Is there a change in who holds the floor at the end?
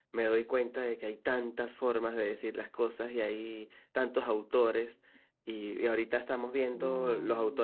No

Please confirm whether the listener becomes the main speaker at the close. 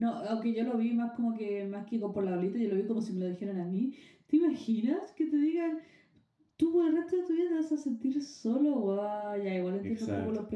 No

